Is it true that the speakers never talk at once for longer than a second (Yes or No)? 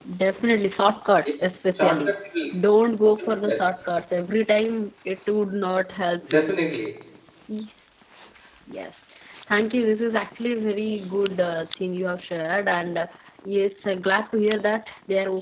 Yes